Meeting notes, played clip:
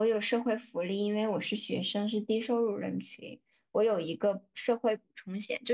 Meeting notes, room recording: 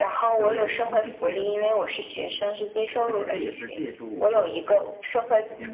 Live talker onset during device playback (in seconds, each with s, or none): 0.3 s